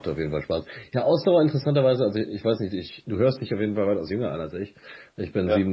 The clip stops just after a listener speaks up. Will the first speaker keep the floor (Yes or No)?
Yes